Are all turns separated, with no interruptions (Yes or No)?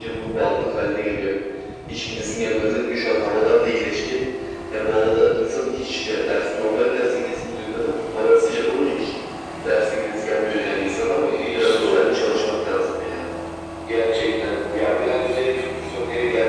No